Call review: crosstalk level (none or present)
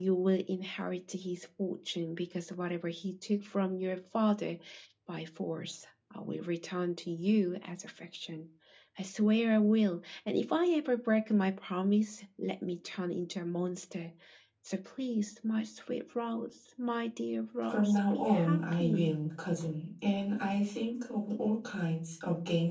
present